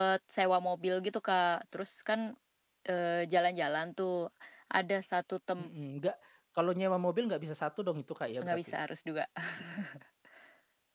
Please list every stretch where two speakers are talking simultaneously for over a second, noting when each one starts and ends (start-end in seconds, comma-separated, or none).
none